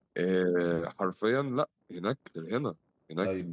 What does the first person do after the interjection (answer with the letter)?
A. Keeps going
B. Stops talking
A